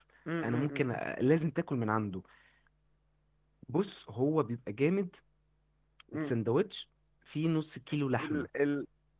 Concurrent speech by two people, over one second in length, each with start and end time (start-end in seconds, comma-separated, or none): none